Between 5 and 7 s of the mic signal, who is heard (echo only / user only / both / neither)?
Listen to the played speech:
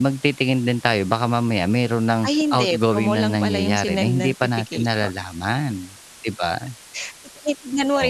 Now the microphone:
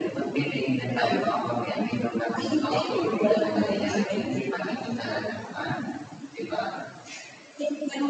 echo only